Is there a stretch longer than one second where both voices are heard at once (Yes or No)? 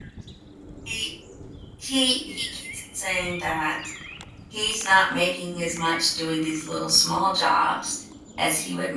No